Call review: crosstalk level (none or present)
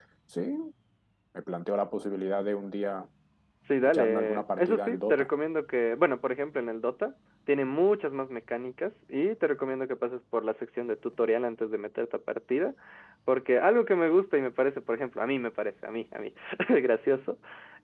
present